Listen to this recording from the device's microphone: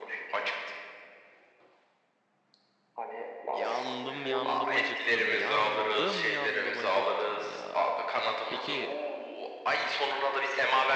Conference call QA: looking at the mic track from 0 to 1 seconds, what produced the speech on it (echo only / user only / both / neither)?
echo only